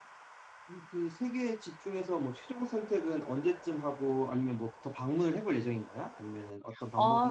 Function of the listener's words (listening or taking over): taking over